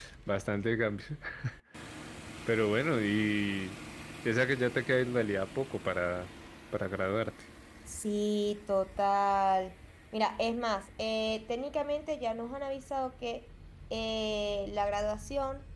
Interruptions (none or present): none